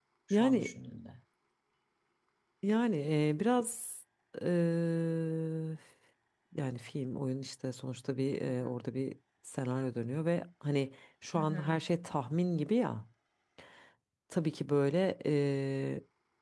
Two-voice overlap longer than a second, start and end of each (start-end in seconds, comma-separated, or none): none